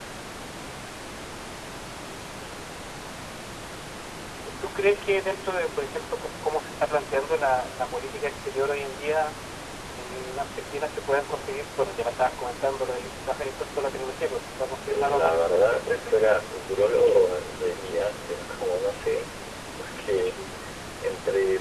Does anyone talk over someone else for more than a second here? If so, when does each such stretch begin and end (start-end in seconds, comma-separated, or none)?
14.9-16.1